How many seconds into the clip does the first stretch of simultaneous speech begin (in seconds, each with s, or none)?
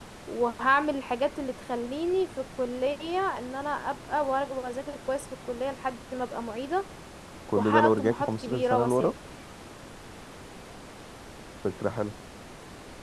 7.5 s